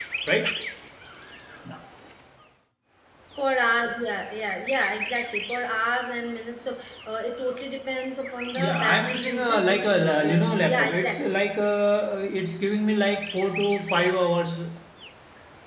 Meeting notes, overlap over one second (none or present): present